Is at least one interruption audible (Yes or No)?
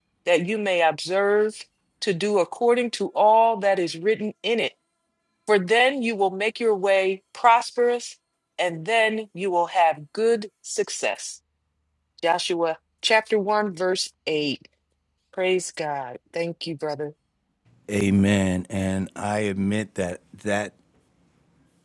No